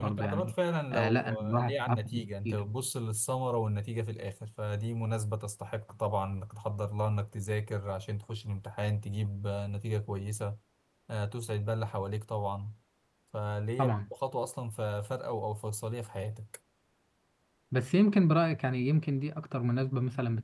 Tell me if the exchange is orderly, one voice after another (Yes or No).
No